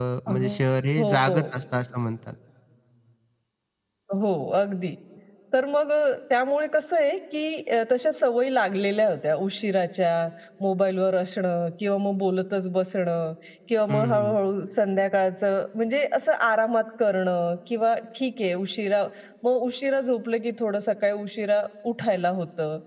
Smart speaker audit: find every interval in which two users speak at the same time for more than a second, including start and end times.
none

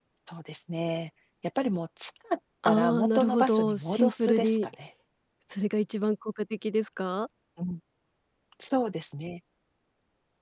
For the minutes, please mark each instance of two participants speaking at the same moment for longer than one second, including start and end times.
2.6-4.6

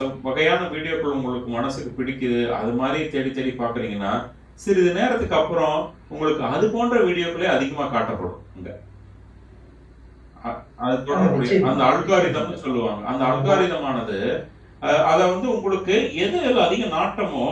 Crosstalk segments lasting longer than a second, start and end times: 11.1-12.8

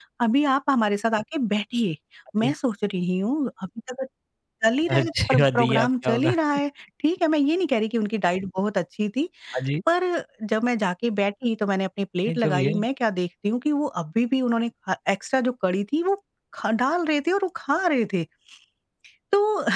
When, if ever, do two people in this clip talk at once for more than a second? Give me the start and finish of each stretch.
4.9-6.3

